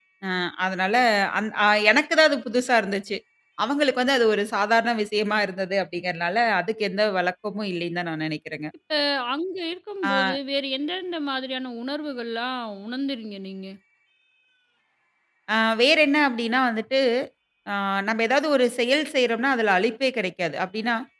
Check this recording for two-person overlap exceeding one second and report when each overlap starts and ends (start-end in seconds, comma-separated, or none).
none